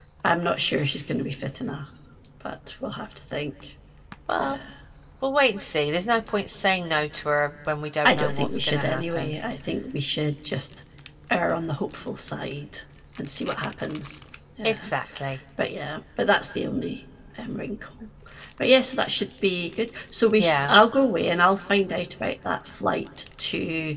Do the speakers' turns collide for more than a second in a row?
Yes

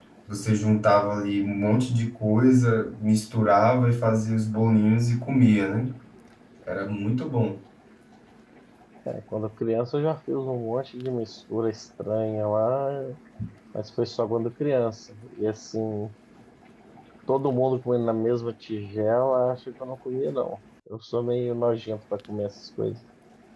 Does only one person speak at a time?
Yes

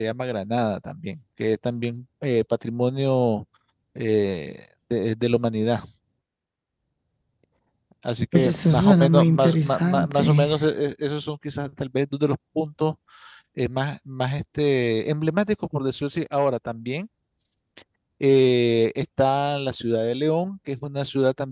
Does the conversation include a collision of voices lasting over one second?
Yes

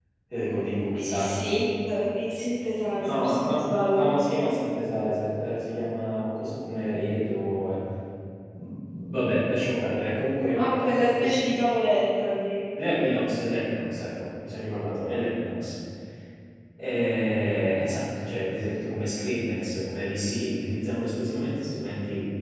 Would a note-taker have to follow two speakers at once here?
Yes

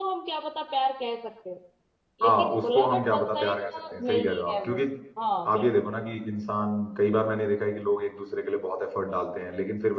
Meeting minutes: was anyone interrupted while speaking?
Yes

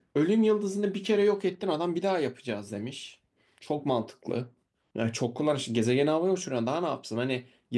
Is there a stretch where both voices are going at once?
No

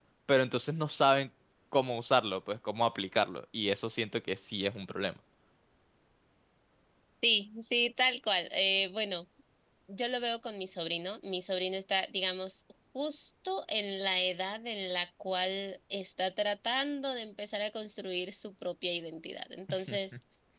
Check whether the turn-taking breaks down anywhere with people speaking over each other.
No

